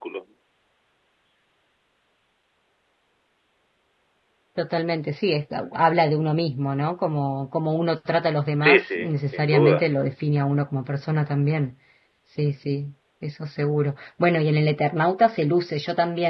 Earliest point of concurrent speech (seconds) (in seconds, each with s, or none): 8.6 s